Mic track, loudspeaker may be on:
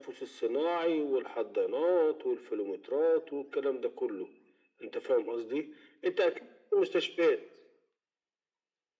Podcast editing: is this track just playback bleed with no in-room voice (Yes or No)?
Yes